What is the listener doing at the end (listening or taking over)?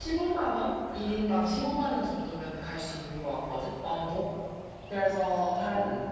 listening